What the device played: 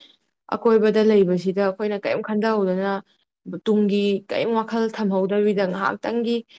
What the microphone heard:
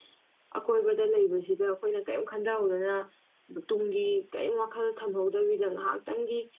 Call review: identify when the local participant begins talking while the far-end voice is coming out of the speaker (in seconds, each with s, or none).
none